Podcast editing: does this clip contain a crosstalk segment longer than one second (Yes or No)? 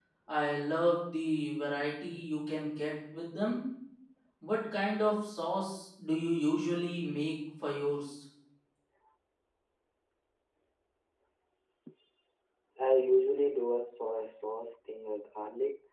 No